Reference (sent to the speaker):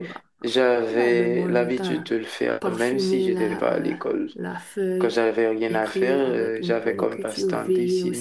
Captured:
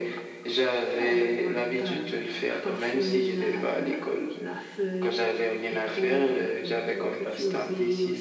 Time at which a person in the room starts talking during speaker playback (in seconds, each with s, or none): none